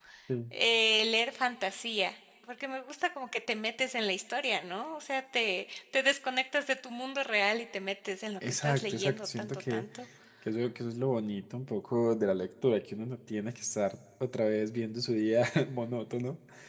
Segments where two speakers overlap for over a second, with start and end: 8.5-9.8

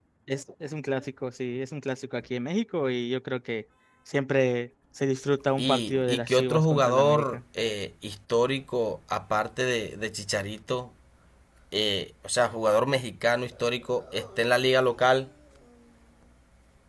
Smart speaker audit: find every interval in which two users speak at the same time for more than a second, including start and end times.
5.6-7.4

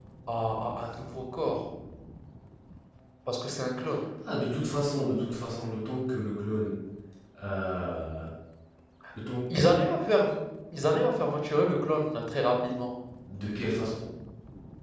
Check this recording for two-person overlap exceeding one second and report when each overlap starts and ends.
none

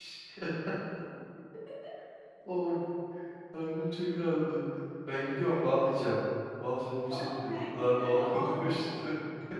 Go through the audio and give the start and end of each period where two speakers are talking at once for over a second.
7.1-9.0

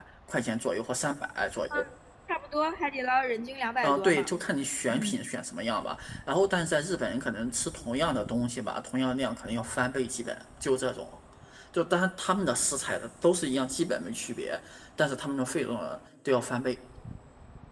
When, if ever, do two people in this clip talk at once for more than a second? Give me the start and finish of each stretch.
none

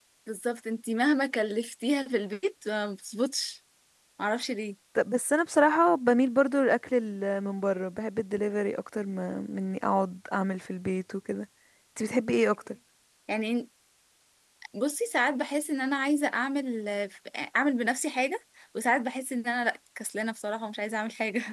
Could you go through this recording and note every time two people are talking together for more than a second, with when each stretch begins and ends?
none

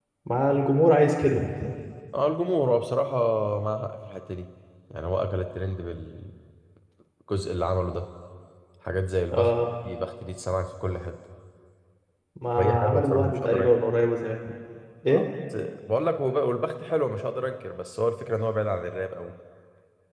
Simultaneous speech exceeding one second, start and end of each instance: 12.6-13.8

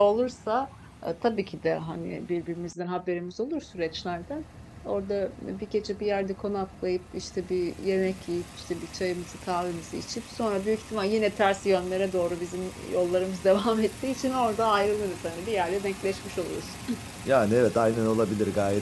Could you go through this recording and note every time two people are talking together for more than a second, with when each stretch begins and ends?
none

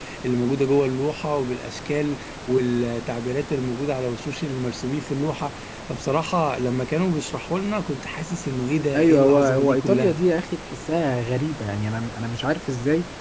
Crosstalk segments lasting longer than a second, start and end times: 9.0-10.2

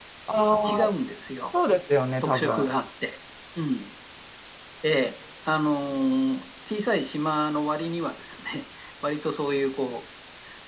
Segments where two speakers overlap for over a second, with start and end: none

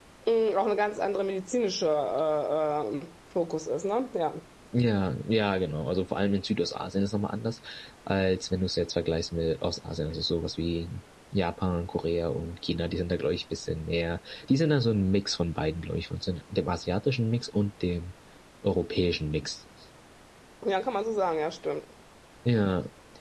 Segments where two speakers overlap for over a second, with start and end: none

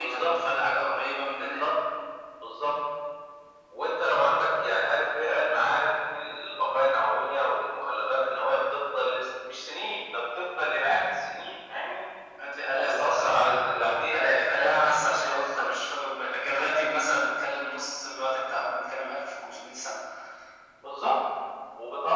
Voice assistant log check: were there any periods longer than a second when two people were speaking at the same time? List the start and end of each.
12.8-15.7

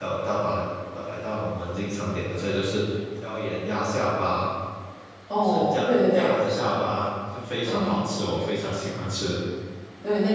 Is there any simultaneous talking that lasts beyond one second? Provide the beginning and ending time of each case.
5.4-6.8

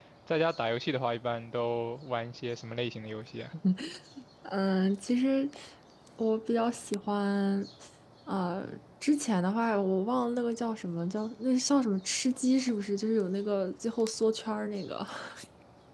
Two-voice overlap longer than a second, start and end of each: none

